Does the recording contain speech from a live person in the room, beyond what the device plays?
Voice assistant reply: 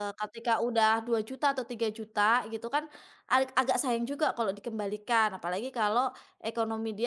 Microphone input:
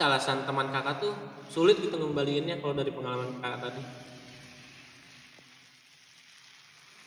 Yes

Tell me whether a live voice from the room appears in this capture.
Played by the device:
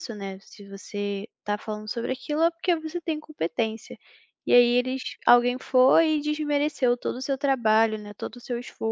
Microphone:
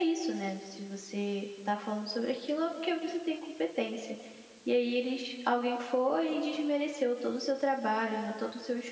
No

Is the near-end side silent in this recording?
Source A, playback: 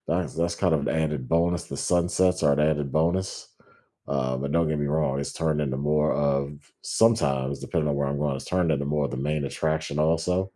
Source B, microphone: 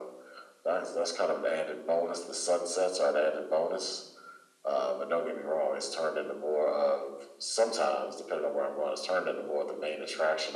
Yes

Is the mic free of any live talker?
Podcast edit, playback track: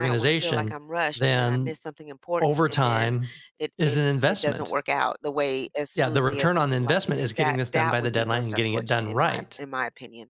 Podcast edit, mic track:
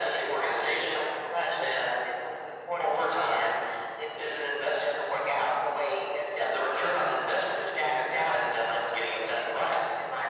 Yes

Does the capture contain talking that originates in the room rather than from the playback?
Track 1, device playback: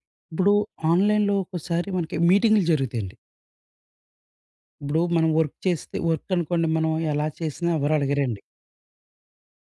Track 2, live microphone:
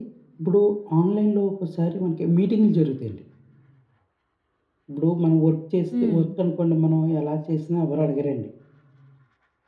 Yes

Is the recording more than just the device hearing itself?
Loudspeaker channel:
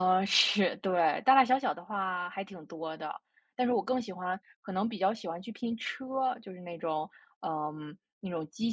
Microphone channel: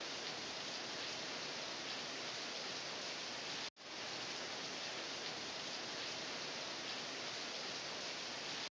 No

